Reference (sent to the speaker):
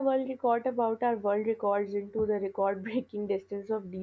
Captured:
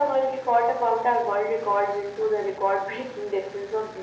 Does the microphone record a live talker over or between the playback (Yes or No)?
No